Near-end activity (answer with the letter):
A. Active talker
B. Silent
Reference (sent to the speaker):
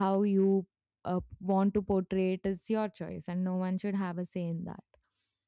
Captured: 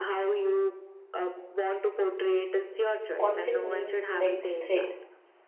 A